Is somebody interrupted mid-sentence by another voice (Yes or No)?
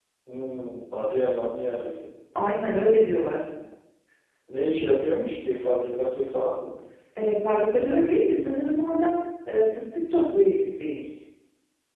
No